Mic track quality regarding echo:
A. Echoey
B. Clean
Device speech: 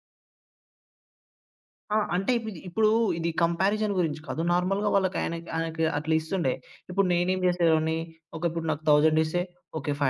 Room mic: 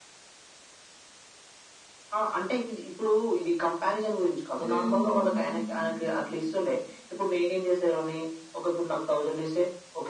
A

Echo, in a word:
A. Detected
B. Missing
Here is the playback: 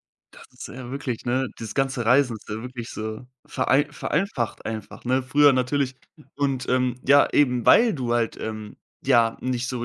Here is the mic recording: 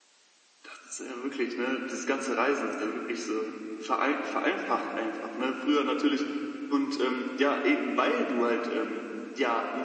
A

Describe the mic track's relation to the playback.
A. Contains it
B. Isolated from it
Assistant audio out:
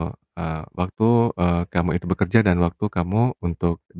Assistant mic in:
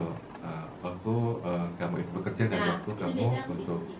A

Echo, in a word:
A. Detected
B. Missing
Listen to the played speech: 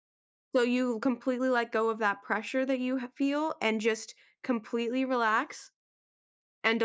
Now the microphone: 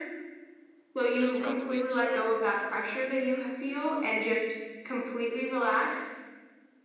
A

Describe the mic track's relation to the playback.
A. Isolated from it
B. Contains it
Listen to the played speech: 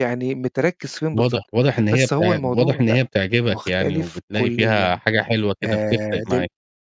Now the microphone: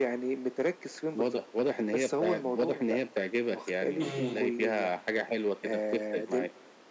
B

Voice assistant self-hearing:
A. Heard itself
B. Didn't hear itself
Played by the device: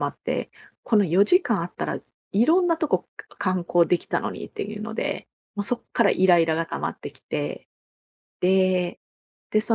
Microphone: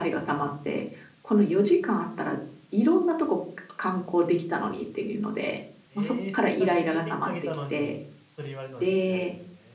A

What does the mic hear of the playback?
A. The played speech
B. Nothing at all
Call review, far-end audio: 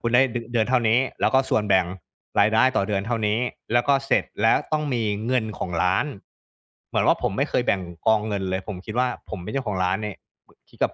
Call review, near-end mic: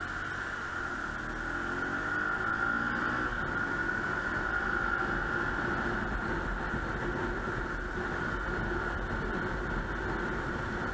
B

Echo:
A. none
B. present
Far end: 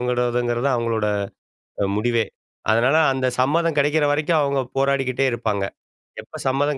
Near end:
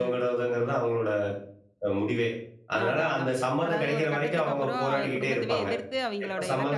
B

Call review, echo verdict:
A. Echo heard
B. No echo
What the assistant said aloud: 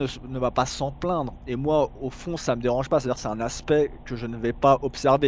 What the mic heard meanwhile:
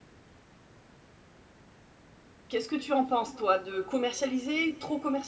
B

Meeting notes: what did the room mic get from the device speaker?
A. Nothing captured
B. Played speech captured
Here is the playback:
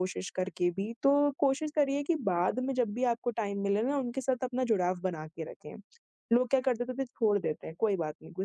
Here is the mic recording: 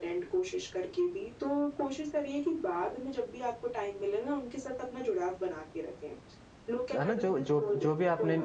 B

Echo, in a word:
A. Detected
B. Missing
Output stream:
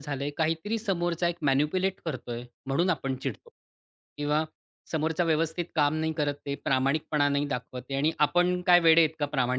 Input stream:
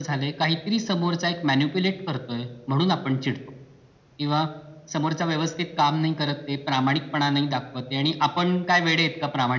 A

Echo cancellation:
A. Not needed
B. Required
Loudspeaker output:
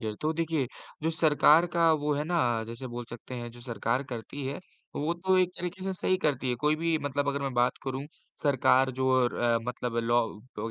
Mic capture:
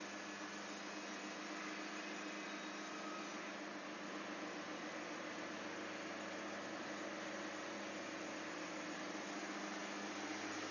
A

